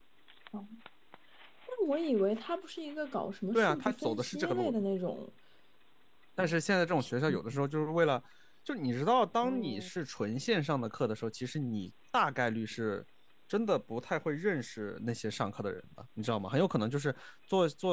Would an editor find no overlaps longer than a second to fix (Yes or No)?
No